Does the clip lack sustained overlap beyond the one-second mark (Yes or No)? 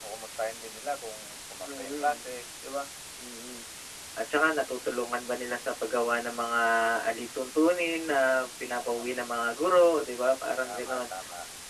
Yes